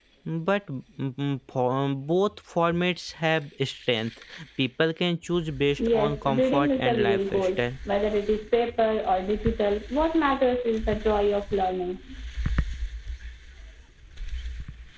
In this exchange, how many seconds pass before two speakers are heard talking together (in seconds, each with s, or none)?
5.8 s